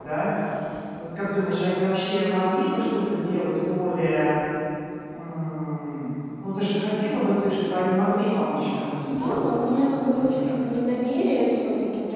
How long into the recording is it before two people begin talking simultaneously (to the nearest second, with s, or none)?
9 s